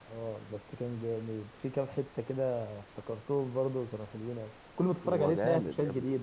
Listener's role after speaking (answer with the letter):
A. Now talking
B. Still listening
A